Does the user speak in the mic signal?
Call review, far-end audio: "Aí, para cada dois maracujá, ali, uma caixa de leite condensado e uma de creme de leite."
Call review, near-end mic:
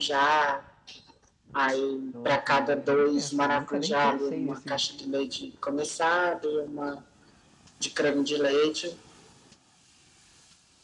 Yes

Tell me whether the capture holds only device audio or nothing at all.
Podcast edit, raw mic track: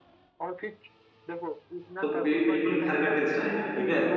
No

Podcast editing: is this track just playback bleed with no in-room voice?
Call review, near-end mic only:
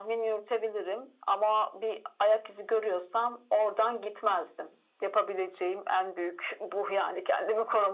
Yes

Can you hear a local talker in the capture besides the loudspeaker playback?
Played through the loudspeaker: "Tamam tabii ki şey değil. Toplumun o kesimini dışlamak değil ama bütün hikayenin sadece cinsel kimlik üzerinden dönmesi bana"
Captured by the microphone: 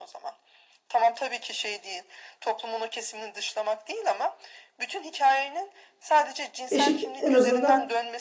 Yes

